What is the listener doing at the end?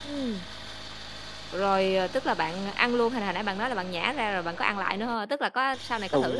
taking over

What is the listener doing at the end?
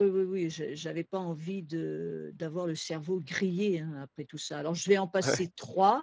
listening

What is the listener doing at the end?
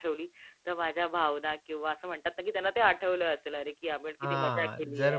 taking over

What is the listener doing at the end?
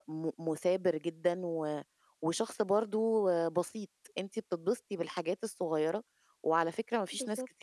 listening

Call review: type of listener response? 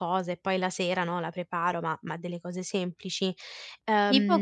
taking over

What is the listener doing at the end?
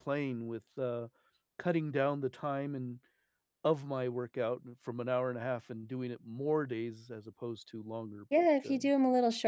taking over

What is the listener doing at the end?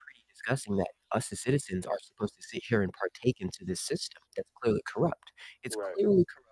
listening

